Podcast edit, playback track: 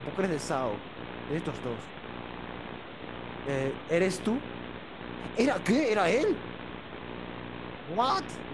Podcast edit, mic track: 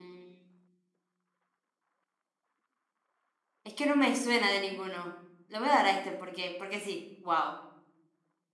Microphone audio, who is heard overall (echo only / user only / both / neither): user only